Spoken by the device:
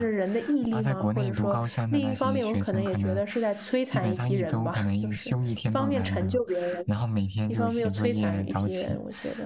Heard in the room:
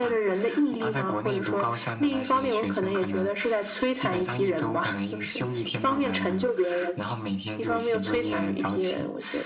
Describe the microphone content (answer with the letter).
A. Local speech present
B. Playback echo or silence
B